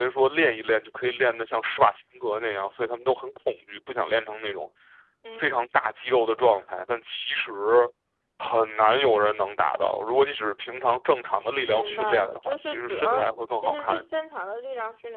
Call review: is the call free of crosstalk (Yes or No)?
No